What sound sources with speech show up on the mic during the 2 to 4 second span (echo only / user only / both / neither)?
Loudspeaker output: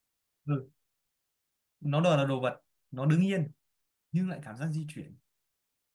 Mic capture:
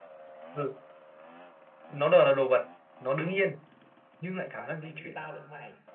echo only